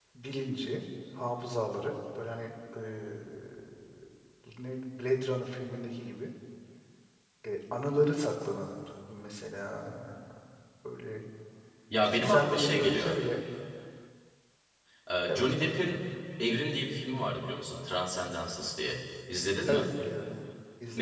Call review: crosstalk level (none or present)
present